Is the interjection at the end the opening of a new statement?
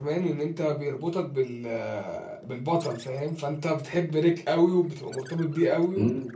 Yes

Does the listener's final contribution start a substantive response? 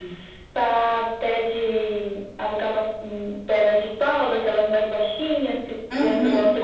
Yes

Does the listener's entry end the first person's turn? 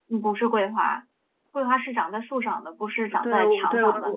Yes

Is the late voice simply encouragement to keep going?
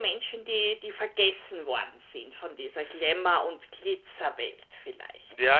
No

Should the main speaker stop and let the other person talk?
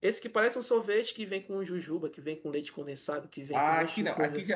Yes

